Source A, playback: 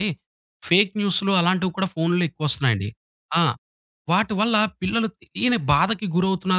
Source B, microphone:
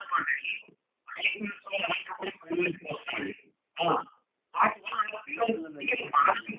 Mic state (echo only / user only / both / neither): both